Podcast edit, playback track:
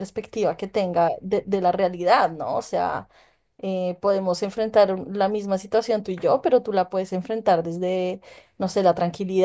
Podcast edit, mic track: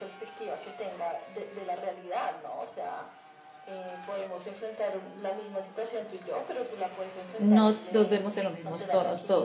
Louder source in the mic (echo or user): user